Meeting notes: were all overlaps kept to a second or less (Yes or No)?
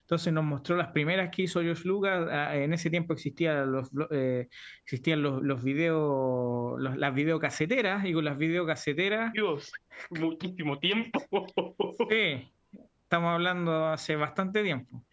Yes